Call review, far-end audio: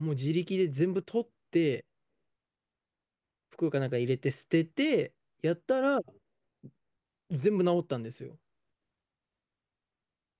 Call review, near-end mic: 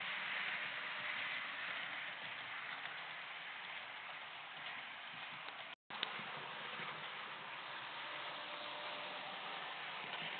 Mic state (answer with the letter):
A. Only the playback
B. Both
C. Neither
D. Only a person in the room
C